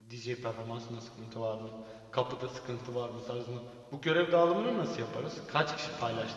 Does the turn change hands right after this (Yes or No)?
Yes